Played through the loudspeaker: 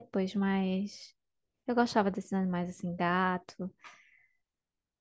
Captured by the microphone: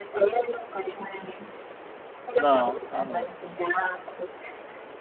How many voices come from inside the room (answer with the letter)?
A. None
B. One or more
B